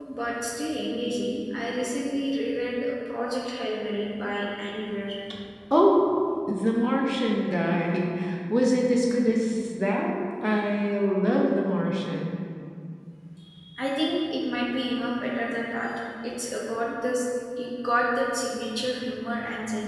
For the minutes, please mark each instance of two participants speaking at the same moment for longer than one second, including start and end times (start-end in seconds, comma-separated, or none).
none